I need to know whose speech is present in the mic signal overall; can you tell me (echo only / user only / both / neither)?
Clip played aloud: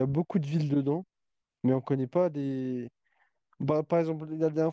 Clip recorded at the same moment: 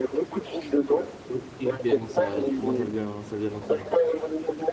both